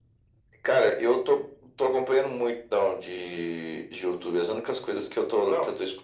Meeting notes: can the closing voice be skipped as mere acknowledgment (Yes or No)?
Yes